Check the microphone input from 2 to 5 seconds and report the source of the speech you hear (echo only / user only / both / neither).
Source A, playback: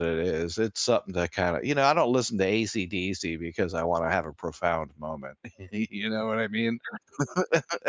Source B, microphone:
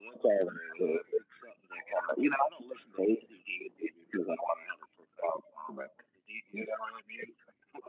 echo only